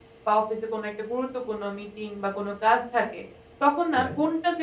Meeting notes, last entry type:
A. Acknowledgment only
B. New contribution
A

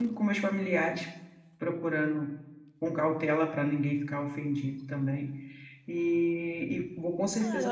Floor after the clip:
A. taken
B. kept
A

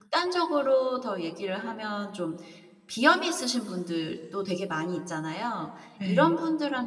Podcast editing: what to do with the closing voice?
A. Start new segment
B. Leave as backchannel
B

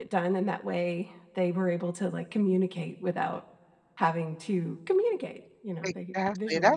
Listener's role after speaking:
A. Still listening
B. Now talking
B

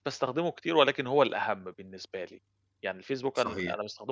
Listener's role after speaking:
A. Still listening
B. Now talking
A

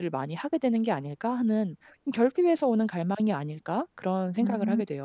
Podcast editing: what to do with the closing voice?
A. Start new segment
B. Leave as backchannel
A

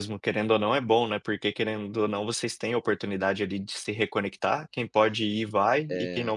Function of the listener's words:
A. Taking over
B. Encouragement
B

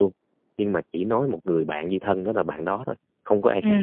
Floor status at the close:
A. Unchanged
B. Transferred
B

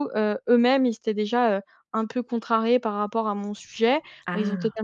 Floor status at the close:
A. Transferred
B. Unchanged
B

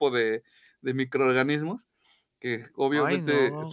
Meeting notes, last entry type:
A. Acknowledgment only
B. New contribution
A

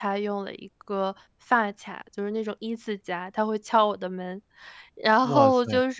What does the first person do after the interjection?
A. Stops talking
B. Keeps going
B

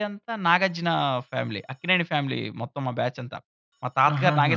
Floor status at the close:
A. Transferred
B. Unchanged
A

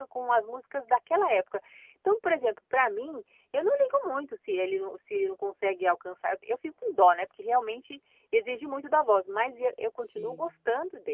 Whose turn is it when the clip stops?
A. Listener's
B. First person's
B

